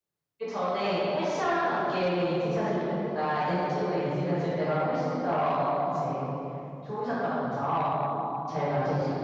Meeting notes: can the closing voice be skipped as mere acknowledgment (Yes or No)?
No